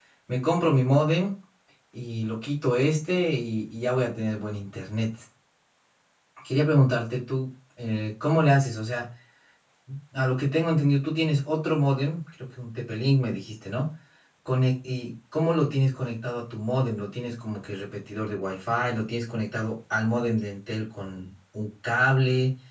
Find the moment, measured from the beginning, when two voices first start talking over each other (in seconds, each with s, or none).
none